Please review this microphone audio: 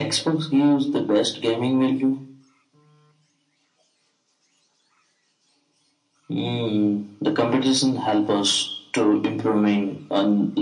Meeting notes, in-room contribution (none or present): none